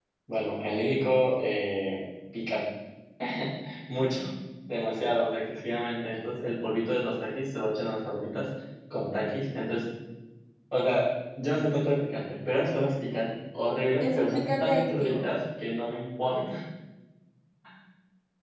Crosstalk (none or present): present